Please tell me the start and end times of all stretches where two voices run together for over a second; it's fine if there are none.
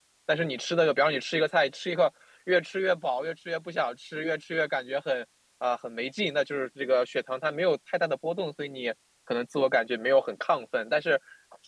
none

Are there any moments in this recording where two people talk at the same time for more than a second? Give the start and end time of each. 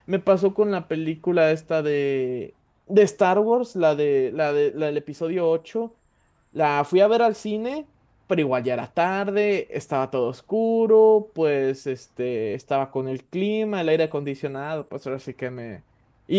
none

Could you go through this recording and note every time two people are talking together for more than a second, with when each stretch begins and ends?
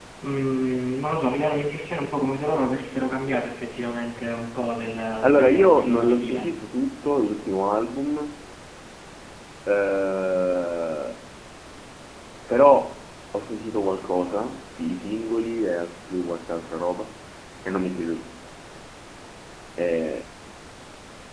5.2-6.5

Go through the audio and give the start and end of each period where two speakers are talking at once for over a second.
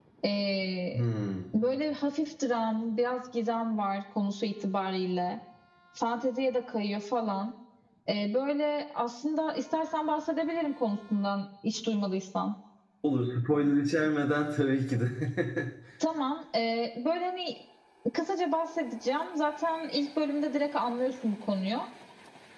none

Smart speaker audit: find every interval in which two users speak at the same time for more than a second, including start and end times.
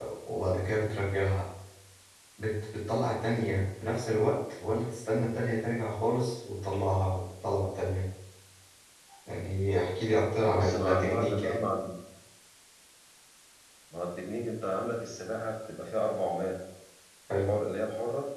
10.4-11.7

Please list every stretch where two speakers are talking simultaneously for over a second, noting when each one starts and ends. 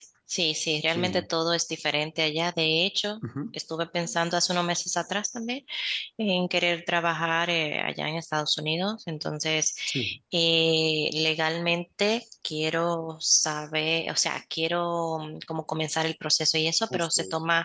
none

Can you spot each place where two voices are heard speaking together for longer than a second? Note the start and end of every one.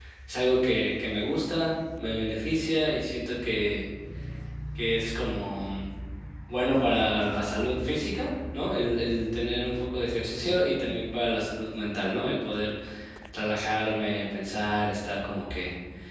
none

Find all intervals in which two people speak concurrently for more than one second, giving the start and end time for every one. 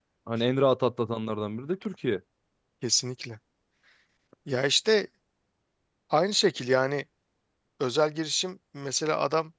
none

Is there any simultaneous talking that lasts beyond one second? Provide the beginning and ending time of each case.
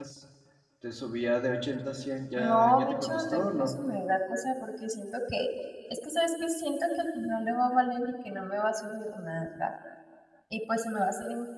2.4-3.8

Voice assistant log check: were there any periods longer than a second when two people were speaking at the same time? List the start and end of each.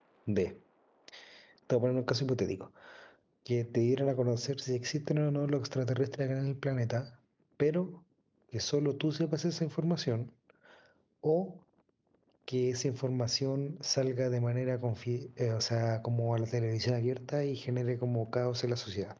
none

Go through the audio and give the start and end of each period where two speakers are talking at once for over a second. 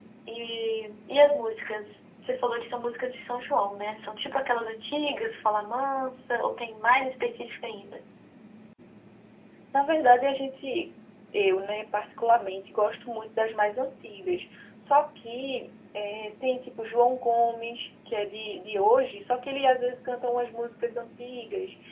none

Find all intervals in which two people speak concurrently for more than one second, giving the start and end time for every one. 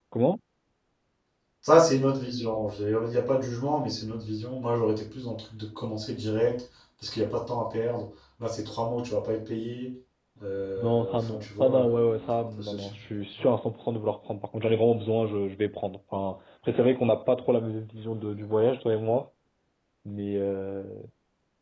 10.8-12.8

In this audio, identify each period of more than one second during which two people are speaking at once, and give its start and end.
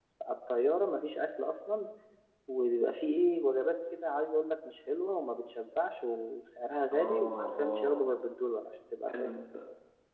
6.9-8.1

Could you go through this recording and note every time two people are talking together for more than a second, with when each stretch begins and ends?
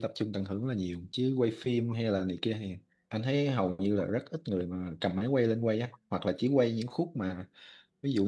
none

